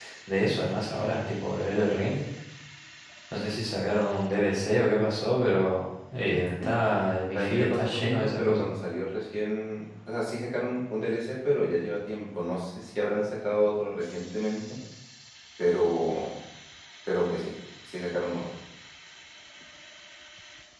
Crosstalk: present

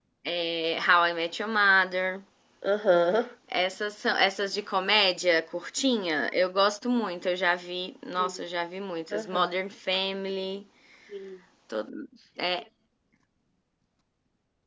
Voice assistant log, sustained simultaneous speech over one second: none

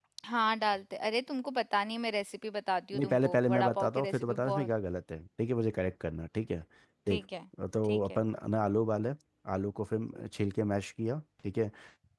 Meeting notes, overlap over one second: present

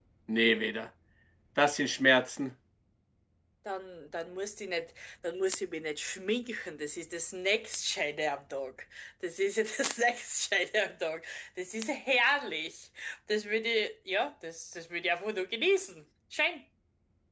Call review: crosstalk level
none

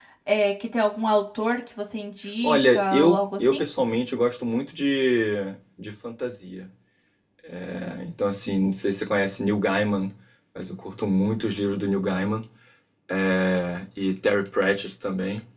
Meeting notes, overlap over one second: present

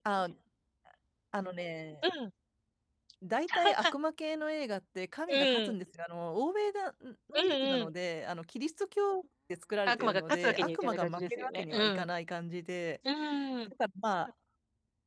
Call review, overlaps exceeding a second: present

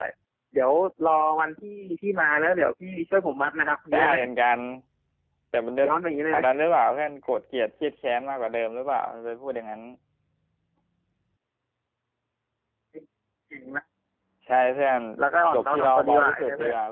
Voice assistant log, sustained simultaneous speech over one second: present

